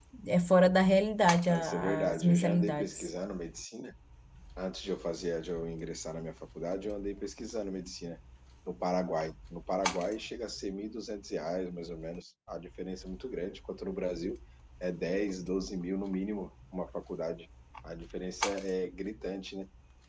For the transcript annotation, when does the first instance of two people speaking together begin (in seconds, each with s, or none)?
1.5 s